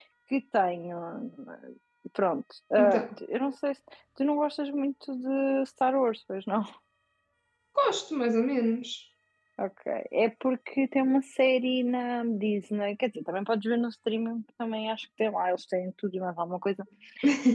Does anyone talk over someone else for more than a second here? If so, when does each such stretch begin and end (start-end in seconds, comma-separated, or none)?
none